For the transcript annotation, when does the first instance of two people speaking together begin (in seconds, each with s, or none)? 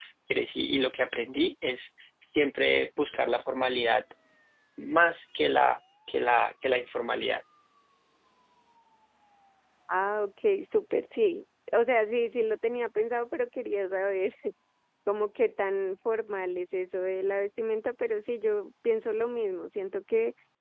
none